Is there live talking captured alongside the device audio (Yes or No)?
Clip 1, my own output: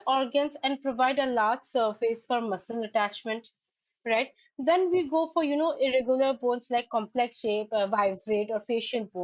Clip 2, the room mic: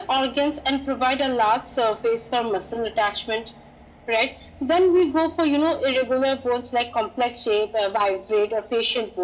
No